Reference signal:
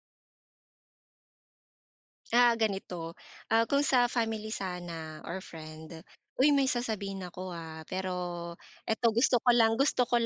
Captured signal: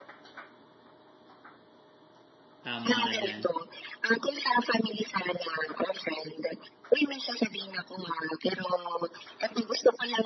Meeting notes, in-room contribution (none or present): present